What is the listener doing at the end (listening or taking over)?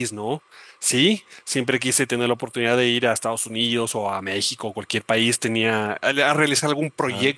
listening